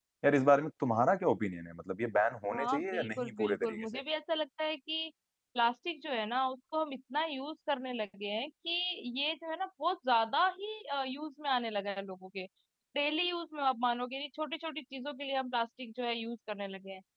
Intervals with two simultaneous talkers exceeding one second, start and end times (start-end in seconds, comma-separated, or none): 2.5-3.9